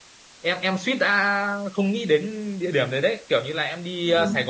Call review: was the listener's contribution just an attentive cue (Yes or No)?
Yes